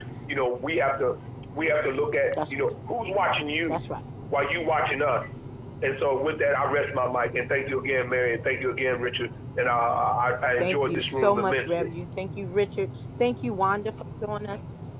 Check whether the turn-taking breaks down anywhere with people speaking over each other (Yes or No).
Yes